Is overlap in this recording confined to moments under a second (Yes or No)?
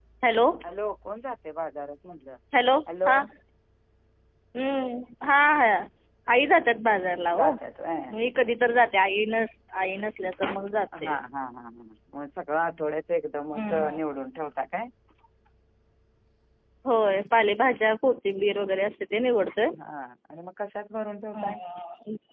Yes